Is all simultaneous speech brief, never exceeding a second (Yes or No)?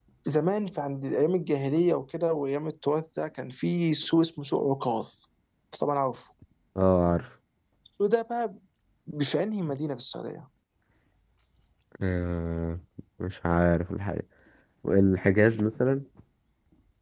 Yes